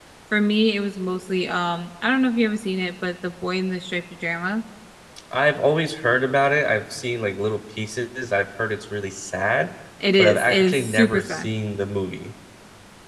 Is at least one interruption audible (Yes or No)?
Yes